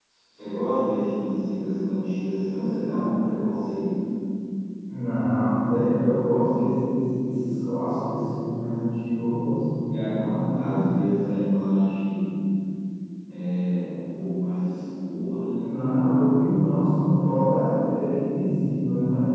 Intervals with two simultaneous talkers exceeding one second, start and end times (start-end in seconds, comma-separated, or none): none